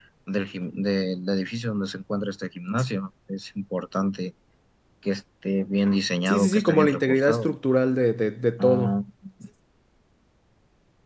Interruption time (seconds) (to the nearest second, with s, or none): 6 s